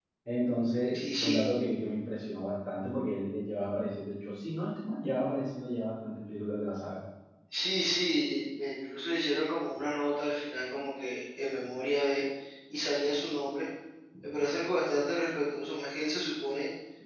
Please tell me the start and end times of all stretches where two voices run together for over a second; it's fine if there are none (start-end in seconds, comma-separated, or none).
none